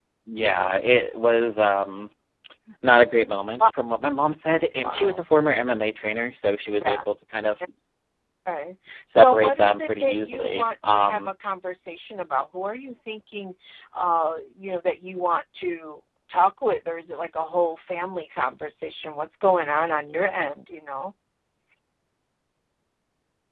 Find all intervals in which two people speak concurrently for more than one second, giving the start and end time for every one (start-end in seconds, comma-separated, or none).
9.1-11.3